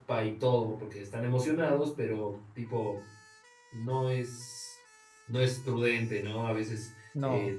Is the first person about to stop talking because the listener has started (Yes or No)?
No